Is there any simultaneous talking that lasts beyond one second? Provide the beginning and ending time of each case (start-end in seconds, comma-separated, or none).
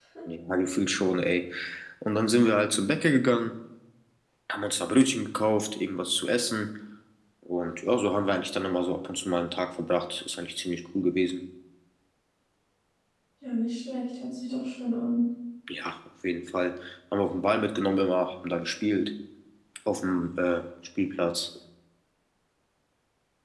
none